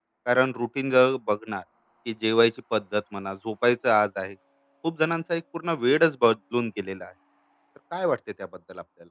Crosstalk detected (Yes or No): No